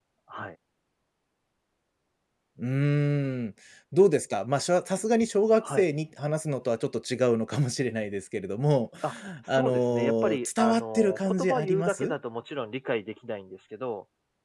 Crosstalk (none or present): present